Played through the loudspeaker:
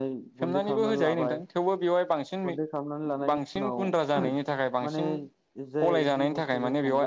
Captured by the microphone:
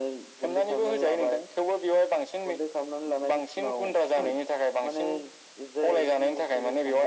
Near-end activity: none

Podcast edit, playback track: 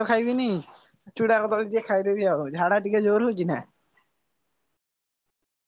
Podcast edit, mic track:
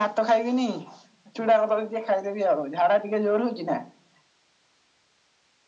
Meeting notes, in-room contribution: none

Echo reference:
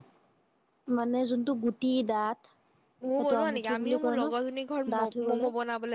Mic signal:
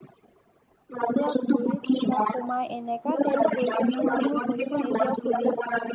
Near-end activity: present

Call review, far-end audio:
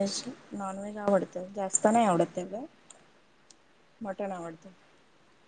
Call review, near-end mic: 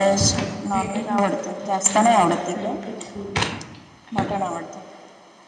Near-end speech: present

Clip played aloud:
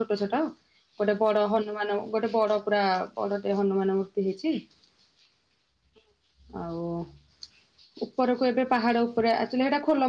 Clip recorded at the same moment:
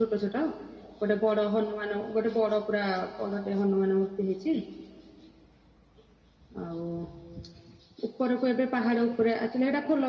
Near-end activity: none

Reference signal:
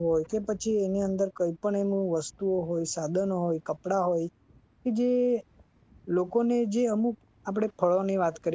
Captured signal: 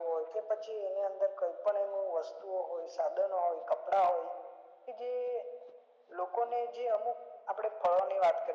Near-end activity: none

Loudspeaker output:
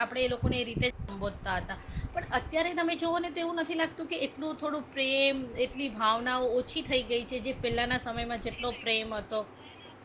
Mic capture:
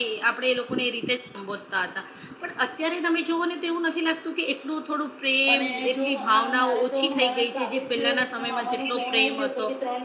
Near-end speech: present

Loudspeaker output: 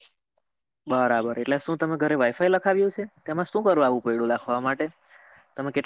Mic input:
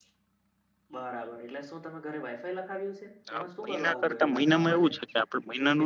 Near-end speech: present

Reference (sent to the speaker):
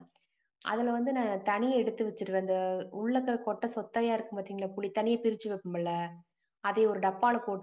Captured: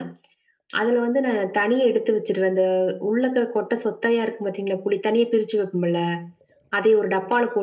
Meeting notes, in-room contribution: none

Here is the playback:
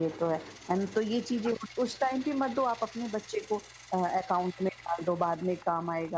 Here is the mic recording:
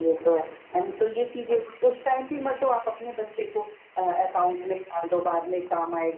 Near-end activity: none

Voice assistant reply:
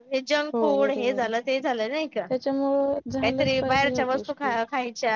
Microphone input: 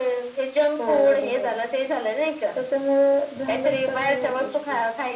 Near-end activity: none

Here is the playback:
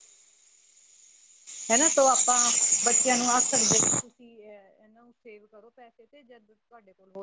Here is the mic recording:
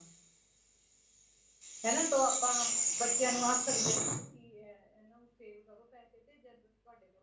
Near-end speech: none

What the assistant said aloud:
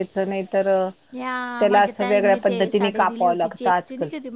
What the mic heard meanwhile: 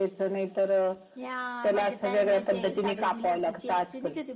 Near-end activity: none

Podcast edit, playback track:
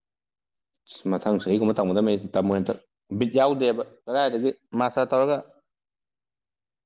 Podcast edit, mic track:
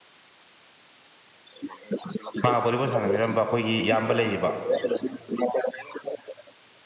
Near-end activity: present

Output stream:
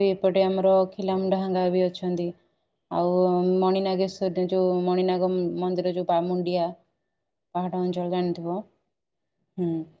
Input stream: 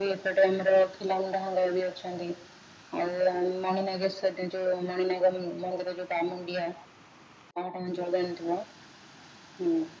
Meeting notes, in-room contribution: none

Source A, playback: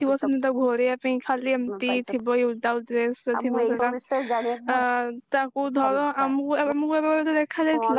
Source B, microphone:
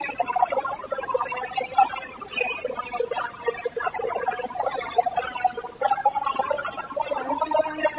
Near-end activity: present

